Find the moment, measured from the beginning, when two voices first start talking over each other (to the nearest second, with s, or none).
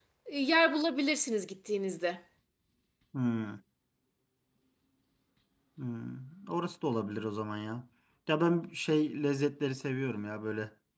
none